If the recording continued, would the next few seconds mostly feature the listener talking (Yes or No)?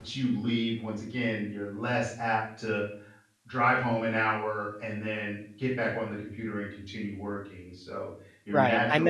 Yes